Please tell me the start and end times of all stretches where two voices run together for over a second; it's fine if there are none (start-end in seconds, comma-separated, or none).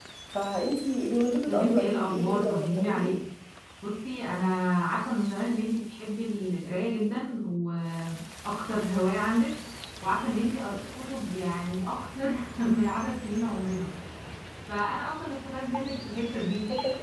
1.5-3.2